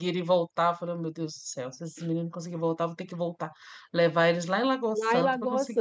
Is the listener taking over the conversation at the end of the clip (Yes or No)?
Yes